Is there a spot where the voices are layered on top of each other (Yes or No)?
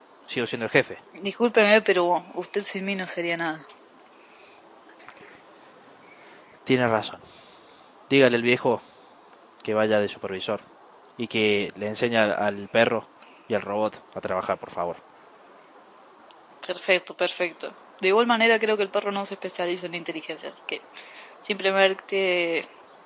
No